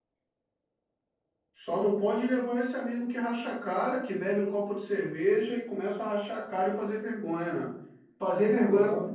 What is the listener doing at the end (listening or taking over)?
listening